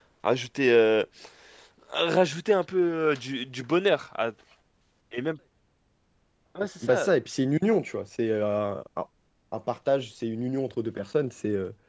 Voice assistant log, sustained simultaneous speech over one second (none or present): none